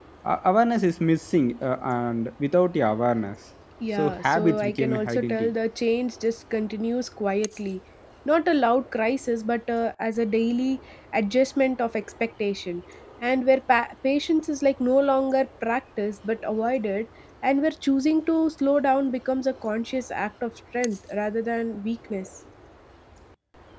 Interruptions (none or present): present